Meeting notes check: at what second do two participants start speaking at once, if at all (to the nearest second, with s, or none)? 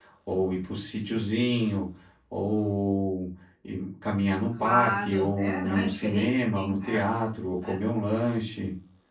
5 s